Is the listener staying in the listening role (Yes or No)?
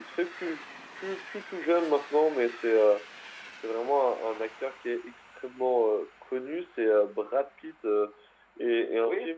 Yes